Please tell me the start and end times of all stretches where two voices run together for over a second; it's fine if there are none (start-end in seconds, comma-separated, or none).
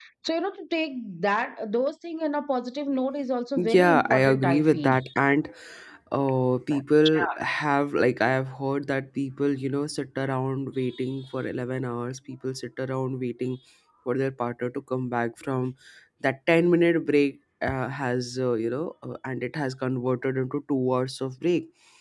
3.5-5.0